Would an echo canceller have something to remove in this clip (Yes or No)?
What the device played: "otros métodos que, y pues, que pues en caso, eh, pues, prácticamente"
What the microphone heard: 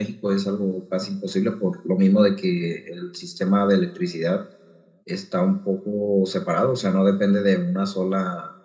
No